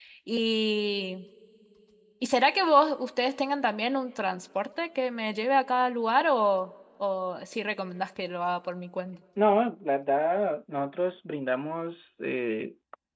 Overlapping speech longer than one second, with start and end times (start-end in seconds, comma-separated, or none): none